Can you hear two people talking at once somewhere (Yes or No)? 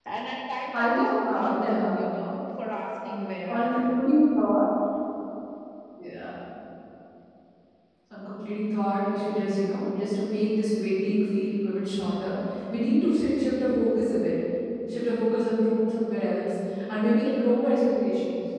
Yes